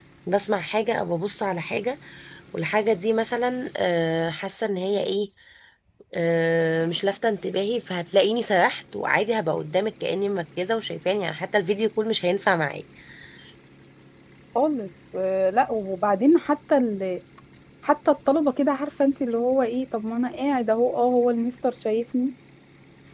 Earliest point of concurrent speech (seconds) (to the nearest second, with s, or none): none